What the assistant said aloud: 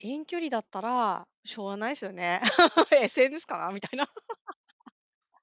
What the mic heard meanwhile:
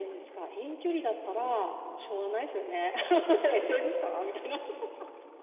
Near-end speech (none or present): none